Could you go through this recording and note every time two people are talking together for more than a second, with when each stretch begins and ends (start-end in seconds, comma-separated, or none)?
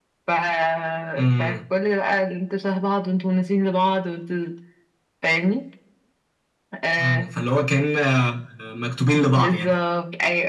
none